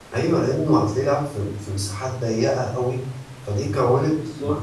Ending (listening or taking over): listening